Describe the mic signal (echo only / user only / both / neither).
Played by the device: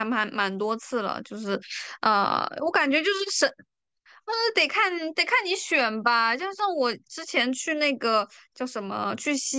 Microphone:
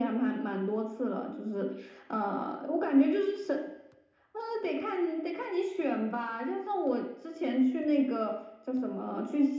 echo only